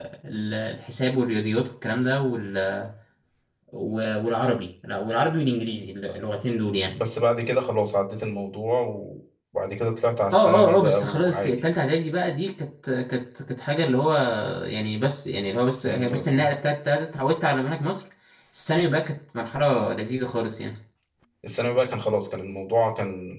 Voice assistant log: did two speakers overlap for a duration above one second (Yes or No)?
Yes